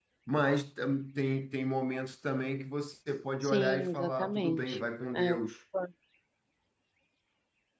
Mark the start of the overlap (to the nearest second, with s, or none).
3 s